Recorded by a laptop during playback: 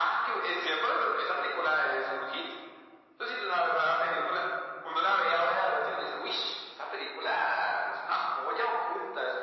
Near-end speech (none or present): none